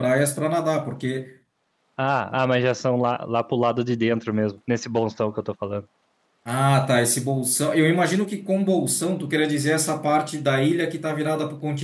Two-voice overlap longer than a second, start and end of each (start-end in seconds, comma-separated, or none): none